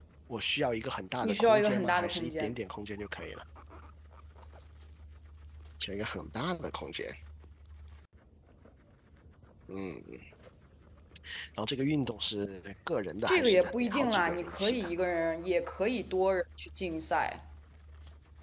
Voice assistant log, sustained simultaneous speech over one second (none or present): present